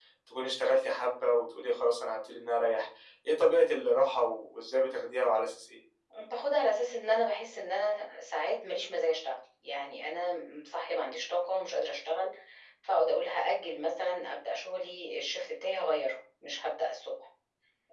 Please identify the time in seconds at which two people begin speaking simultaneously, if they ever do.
none

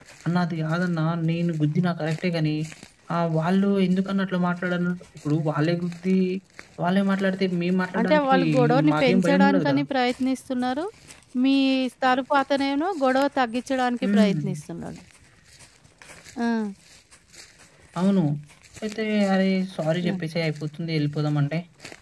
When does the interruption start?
8.0 s

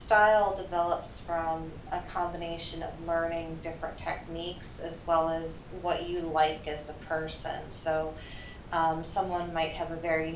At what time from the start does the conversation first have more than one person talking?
none

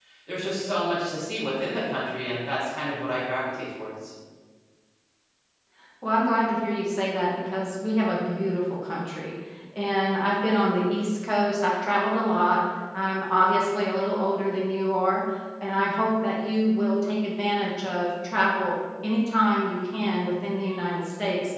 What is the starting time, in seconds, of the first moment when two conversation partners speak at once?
none

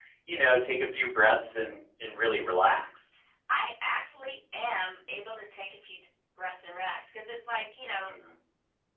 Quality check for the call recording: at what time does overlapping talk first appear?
none

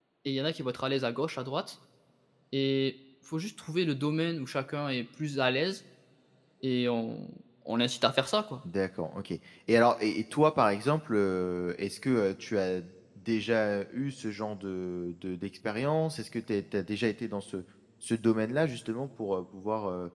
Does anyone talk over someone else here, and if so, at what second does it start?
none

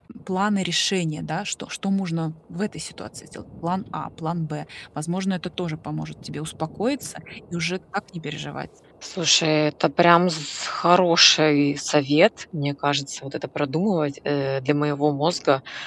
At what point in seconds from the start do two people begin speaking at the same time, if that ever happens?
none

